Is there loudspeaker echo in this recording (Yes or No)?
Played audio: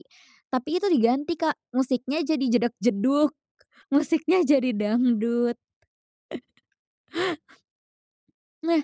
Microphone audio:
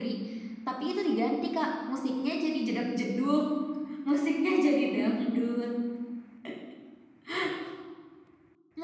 Yes